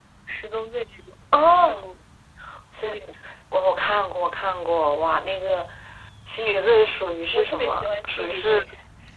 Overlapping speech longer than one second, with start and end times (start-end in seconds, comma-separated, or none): 7.3-8.6